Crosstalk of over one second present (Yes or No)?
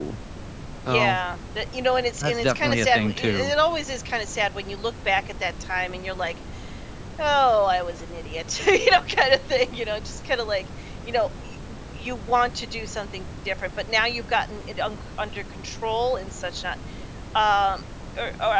Yes